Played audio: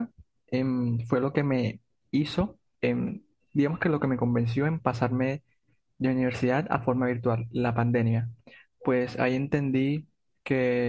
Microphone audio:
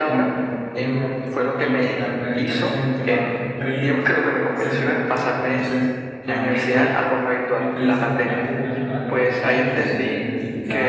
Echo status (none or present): present